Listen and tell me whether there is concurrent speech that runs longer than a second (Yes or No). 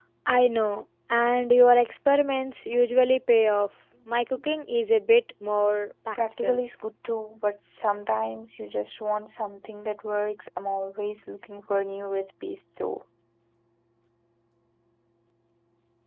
No